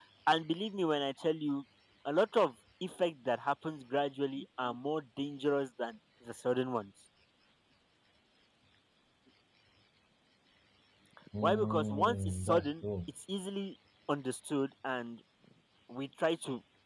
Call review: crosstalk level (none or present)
present